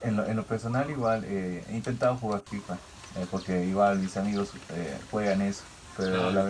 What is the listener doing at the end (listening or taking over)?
listening